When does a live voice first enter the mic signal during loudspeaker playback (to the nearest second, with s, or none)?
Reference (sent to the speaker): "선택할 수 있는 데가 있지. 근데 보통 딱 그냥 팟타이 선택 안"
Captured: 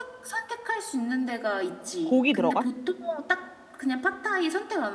2 s